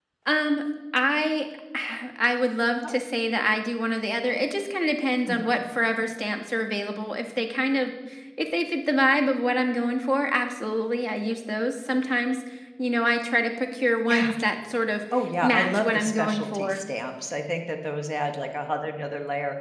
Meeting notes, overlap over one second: present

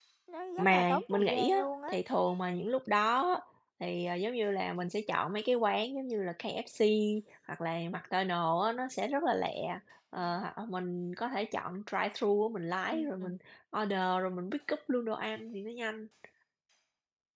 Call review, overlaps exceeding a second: present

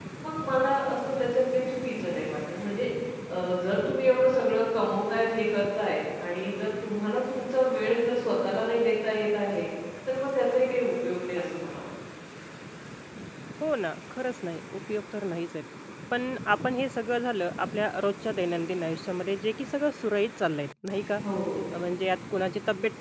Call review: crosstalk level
none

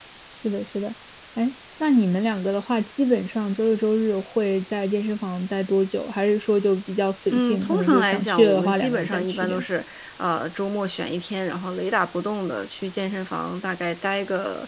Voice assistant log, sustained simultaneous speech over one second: present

